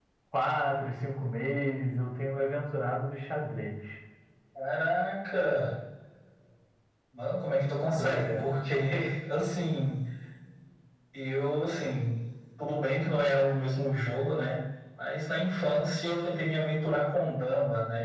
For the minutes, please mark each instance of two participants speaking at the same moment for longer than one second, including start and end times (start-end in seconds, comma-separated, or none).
none